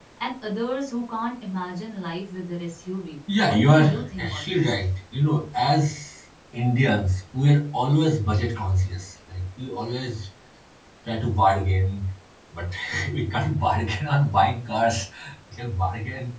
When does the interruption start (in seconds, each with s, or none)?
3.3 s